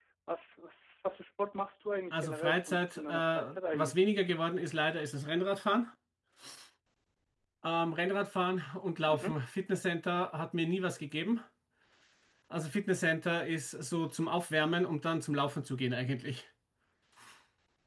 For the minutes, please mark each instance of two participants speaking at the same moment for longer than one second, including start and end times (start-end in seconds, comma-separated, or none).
2.1-4.0